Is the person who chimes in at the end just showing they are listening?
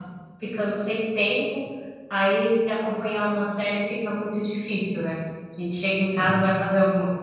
Yes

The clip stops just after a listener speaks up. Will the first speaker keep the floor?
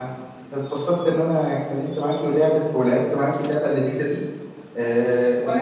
Yes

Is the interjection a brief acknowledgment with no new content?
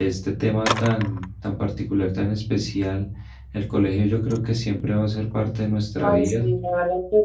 No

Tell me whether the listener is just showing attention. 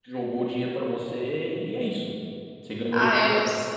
No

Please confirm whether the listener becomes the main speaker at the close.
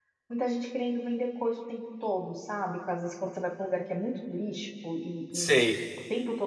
No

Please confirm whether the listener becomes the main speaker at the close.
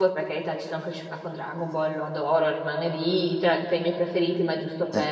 Yes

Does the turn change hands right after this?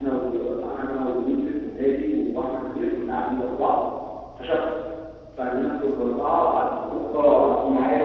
Yes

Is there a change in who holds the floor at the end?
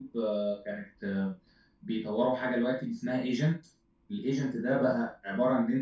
No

